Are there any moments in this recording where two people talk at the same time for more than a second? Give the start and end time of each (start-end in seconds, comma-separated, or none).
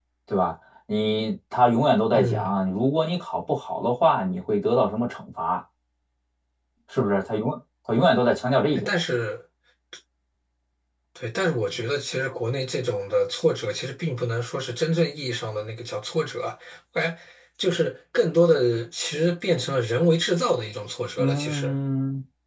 none